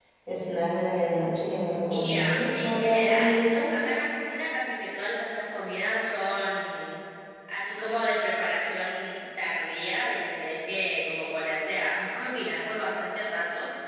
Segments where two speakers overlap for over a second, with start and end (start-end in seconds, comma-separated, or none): 1.9-3.7